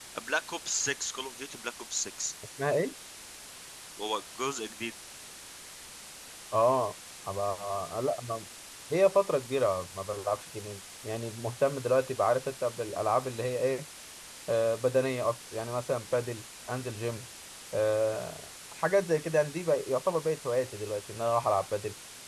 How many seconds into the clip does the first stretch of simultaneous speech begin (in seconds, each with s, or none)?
none